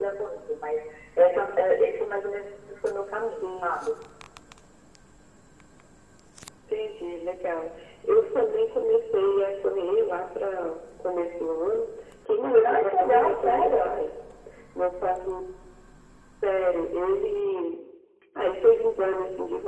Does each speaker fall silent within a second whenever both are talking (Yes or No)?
No